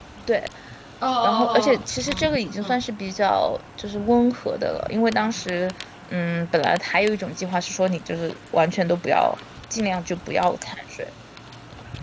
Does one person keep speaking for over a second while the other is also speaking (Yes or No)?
Yes